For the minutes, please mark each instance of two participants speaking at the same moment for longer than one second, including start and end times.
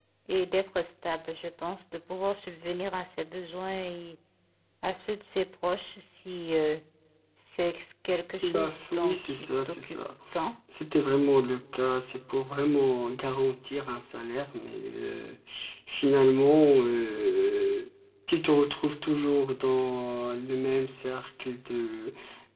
8.4-10.0

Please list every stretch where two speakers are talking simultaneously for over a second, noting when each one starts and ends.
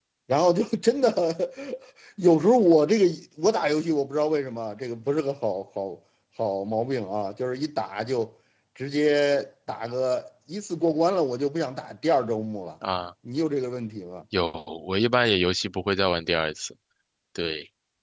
none

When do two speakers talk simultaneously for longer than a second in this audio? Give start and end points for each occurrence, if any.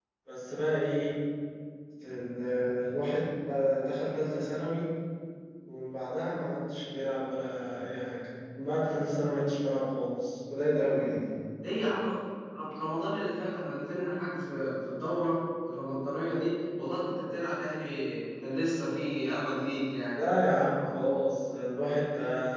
none

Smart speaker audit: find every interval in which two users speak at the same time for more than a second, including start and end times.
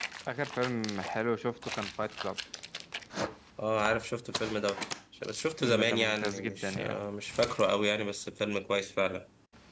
5.5-7.0

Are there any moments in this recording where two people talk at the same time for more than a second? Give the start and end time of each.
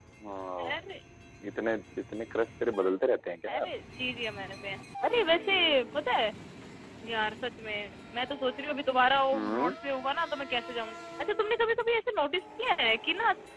none

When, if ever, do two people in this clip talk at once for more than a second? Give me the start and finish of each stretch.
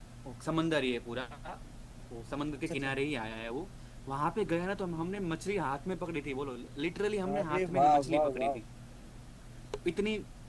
7.4-8.6

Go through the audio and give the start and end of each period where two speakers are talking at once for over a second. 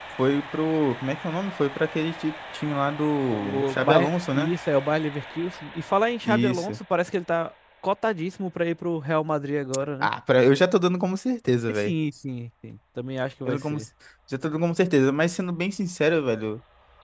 3.3-4.5

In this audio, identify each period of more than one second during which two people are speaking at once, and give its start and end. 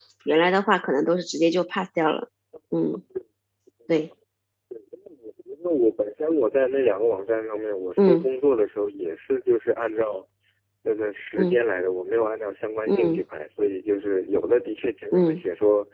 none

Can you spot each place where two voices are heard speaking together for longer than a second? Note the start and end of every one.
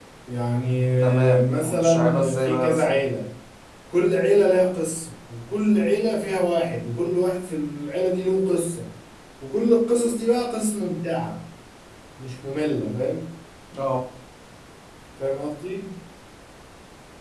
1.0-3.0

